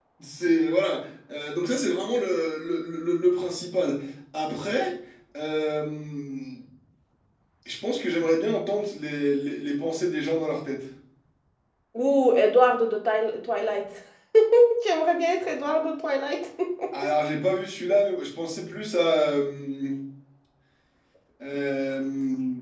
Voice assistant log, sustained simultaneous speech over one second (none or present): none